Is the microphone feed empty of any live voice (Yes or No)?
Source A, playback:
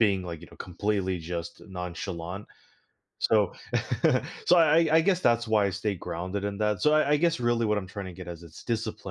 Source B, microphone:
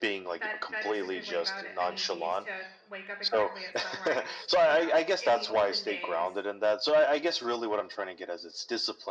No